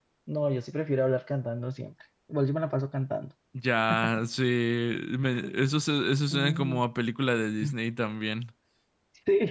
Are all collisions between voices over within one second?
Yes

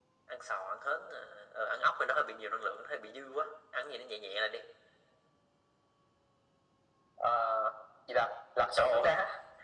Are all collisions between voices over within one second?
Yes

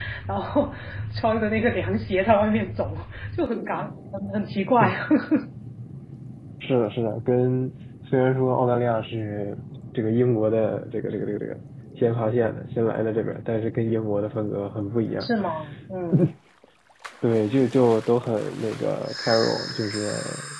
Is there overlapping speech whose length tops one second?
No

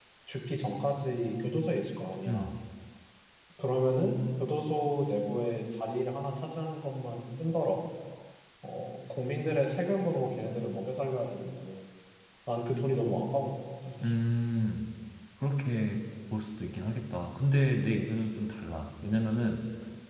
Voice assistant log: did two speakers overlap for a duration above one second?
No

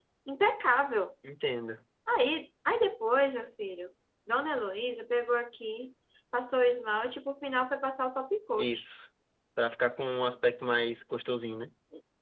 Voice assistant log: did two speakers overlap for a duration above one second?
No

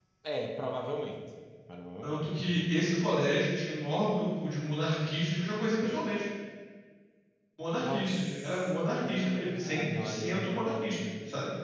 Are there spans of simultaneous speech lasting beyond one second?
Yes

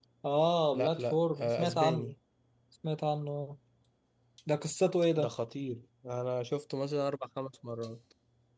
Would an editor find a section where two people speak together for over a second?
Yes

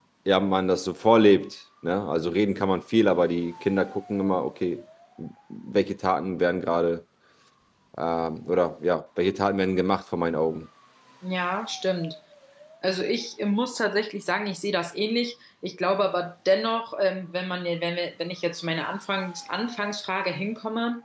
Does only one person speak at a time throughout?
Yes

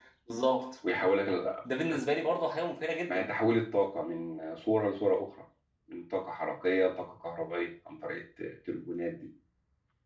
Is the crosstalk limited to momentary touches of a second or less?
Yes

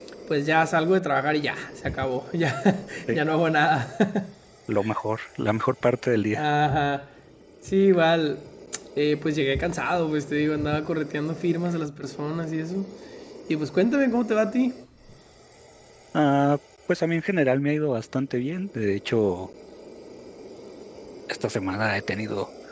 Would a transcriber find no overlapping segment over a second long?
Yes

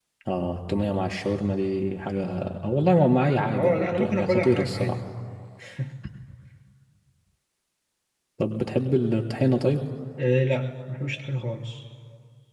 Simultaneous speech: Yes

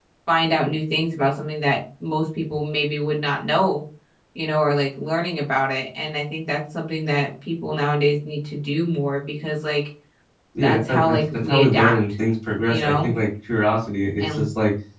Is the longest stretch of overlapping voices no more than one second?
No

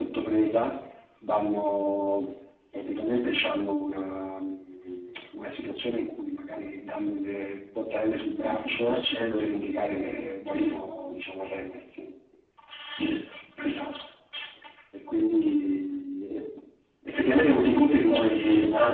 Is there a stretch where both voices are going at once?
Yes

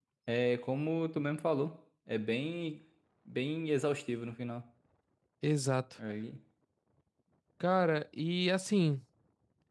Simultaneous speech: No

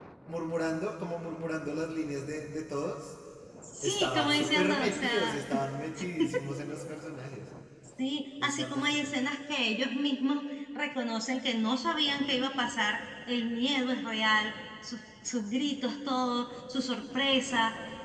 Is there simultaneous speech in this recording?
Yes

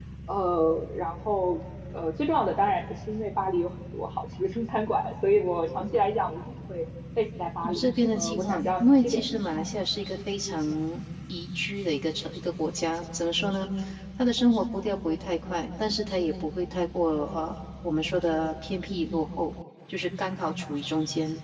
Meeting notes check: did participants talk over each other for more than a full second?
Yes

